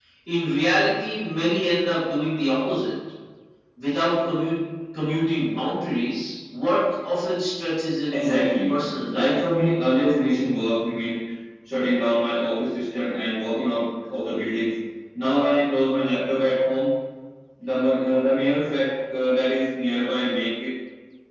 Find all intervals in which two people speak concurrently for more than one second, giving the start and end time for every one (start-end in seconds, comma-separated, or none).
8.1-9.4